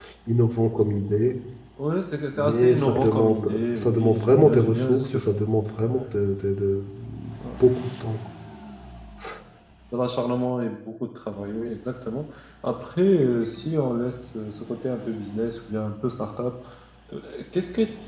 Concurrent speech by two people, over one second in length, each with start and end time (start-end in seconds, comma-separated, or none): 2.4-5.2